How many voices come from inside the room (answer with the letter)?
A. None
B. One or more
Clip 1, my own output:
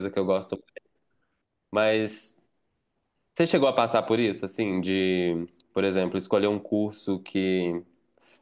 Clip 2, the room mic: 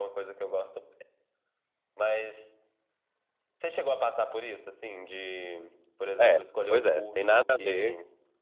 B